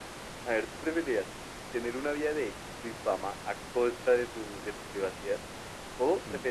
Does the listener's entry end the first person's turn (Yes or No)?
No